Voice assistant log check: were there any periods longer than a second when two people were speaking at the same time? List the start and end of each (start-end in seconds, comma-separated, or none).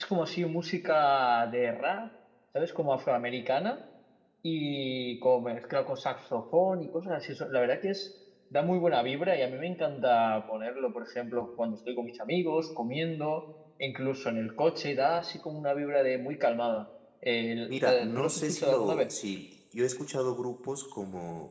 17.7-19.1